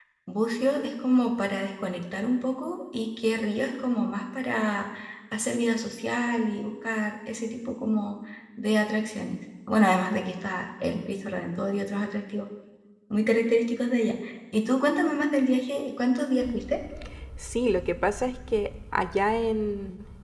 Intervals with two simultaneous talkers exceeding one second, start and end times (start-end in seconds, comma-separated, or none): none